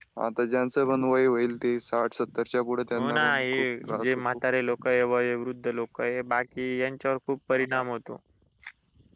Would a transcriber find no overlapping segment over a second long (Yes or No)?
No